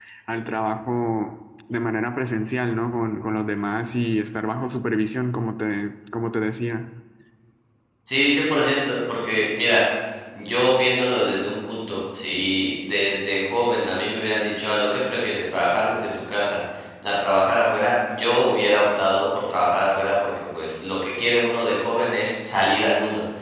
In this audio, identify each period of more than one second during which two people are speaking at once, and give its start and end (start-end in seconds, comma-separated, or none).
none